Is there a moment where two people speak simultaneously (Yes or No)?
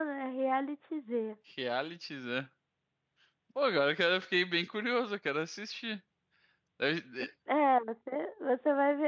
No